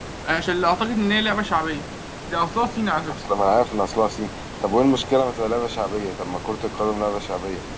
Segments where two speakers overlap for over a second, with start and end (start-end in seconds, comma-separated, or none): none